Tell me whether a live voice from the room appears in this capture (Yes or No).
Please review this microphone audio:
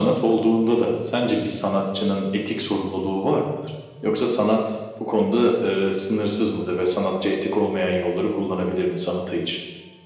No